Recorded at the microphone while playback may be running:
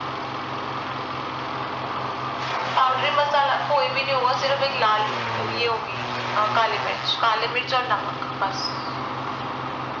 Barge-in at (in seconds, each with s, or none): none